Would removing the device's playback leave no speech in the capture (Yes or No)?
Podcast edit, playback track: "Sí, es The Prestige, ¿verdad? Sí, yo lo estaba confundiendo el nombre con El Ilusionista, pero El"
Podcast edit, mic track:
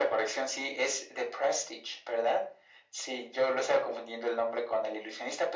Yes